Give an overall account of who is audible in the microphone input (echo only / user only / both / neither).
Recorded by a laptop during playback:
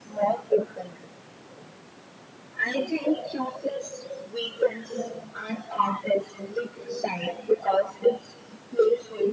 echo only